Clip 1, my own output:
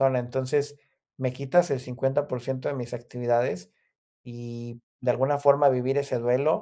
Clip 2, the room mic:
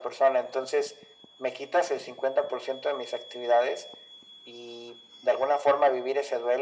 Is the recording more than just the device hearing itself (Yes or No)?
No